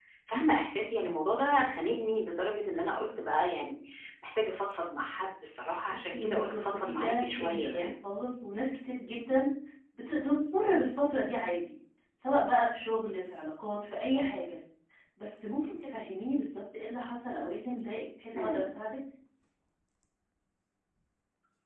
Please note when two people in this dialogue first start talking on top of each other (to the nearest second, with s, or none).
6 s